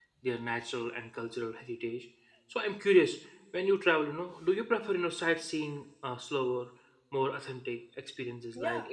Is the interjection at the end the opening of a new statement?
Yes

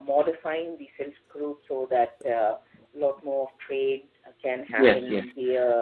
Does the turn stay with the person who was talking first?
Yes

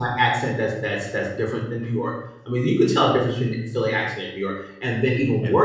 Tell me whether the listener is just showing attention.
Yes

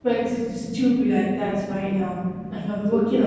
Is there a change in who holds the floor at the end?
No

